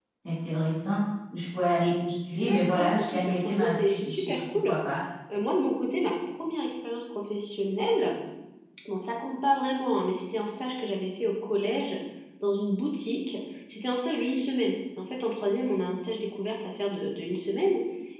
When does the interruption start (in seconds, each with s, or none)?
2.4 s